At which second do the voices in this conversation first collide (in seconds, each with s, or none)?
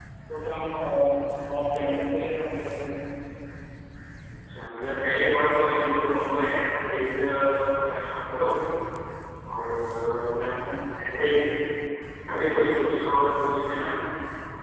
none